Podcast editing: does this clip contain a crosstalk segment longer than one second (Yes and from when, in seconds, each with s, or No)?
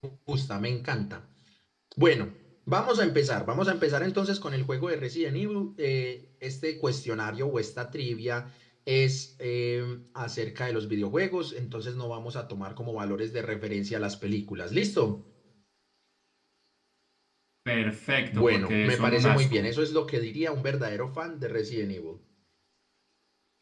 Yes, from 18.3 s